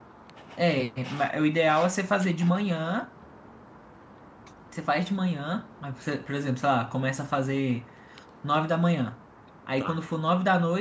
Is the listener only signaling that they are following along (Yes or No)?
Yes